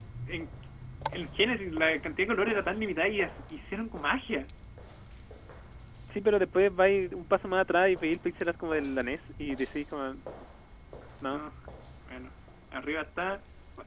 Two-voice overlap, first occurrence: none

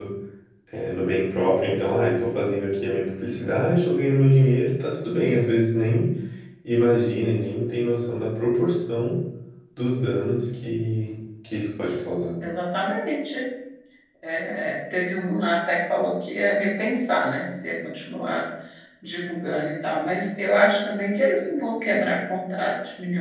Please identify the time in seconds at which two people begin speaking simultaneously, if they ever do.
none

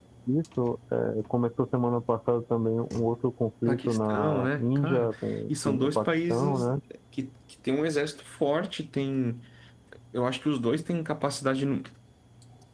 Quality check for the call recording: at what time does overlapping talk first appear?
3.7 s

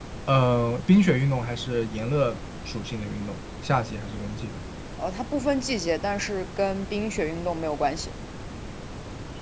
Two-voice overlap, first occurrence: none

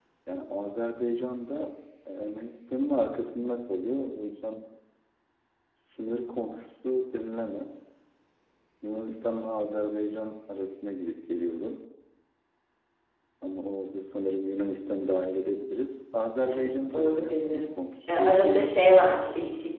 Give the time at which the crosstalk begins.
16.4 s

